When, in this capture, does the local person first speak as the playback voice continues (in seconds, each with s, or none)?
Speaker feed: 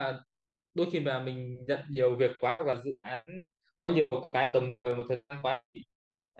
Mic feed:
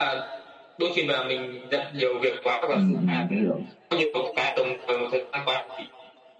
2.7 s